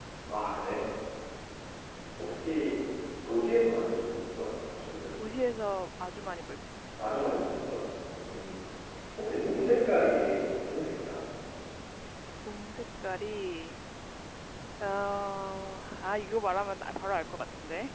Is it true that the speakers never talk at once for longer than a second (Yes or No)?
Yes